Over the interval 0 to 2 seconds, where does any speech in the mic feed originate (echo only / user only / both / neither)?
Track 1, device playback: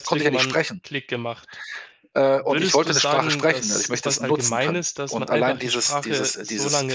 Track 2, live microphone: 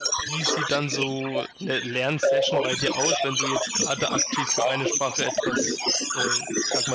both